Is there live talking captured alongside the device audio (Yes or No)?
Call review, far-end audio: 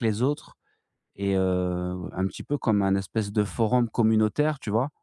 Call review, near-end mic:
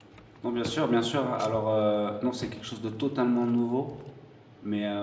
Yes